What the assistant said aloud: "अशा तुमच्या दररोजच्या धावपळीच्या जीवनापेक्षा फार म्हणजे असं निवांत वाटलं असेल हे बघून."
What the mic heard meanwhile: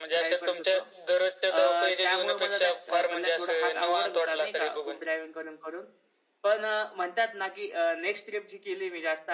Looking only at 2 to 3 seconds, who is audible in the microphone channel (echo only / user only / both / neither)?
both